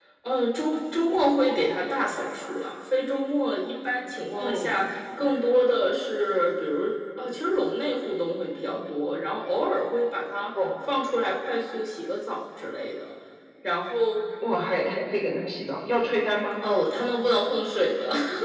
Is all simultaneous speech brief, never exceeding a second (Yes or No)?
Yes